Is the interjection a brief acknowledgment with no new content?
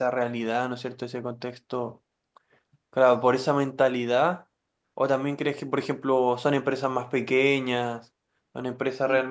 Yes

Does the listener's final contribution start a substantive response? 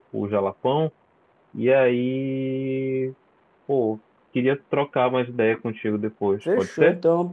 Yes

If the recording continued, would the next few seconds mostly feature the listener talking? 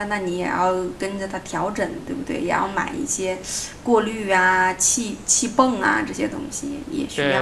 Yes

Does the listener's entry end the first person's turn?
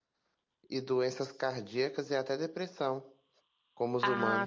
Yes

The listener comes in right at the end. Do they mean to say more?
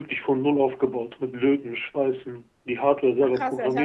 Yes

